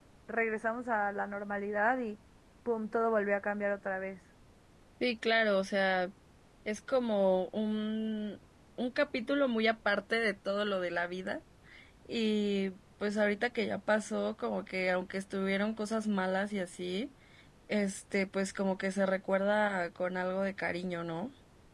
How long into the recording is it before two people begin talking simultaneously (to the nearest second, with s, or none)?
none